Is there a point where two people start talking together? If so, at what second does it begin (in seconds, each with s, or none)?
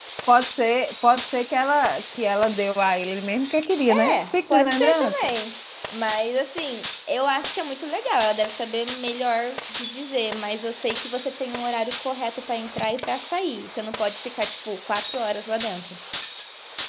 3.9 s